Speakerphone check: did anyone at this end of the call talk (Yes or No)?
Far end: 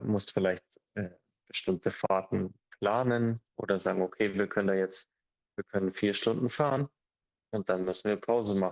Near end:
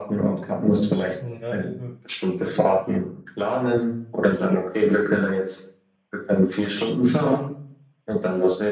Yes